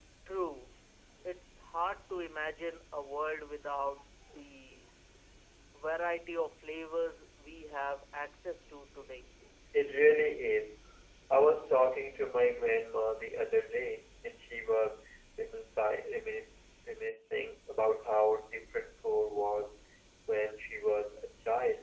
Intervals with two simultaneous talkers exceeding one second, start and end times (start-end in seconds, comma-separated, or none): none